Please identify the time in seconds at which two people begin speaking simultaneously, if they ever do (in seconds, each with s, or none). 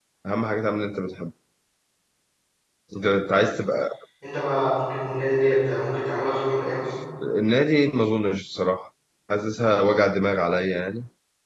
none